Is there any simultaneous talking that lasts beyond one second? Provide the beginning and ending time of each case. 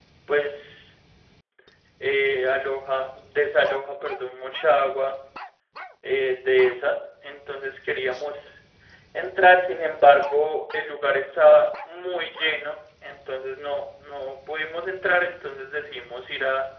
none

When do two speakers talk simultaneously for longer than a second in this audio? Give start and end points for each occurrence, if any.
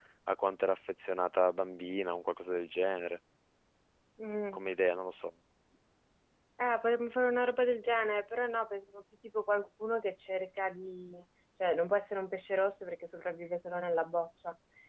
none

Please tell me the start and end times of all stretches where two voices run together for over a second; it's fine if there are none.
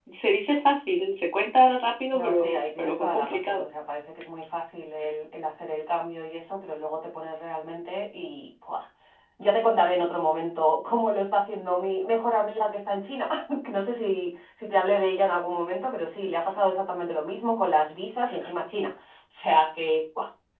2.1-3.6

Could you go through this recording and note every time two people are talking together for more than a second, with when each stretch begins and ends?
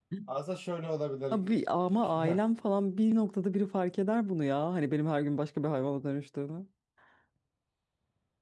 none

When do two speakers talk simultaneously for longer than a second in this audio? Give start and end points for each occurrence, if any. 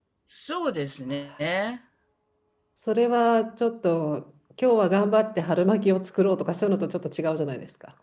none

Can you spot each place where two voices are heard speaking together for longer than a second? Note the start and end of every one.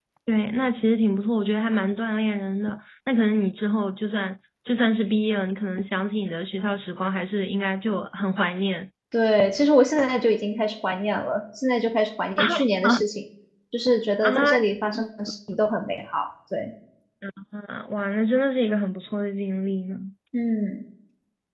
none

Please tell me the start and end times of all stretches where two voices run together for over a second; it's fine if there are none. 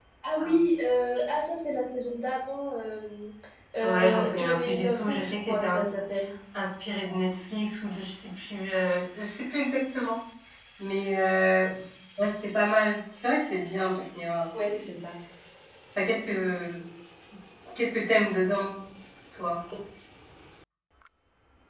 3.8-5.8

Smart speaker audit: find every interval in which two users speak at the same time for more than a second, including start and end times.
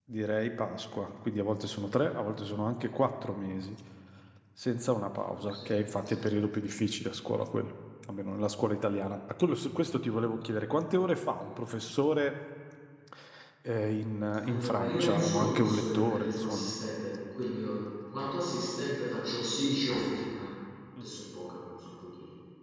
14.4-16.7

